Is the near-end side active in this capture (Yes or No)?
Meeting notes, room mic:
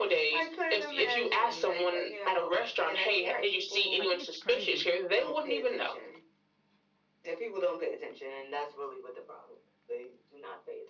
Yes